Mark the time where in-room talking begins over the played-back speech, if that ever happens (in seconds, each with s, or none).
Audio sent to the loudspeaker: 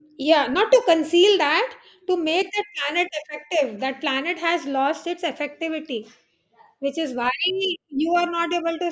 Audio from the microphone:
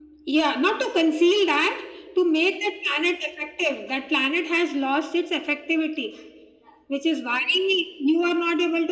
none